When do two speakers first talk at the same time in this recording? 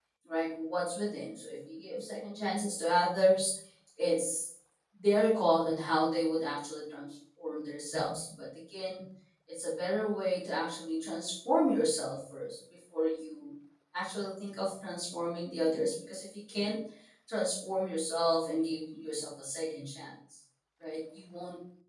none

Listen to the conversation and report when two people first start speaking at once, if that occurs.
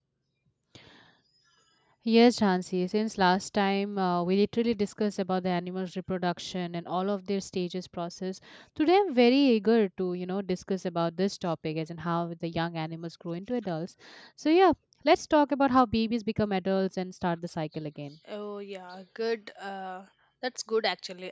none

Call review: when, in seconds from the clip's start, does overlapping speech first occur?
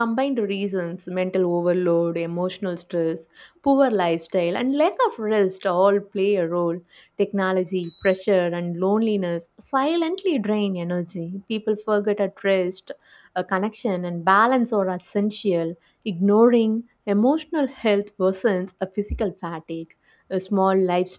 none

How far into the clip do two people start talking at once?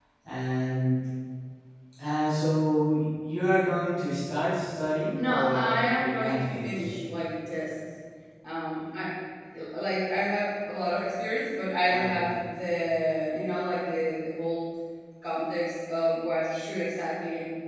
5.2 s

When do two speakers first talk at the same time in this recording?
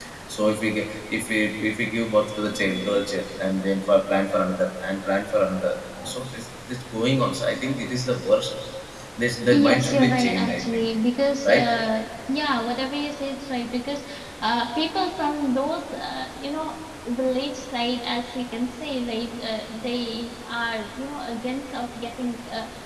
9.5 s

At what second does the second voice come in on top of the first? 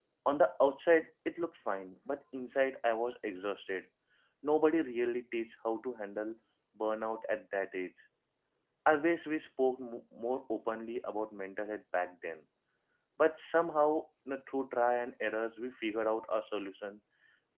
none

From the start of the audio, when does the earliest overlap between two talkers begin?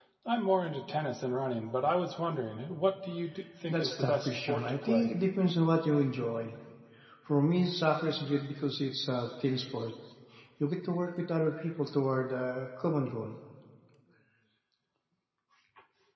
3.7 s

